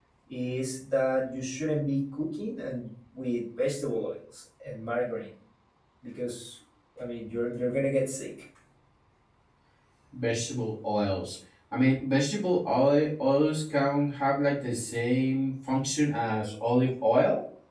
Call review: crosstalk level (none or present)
none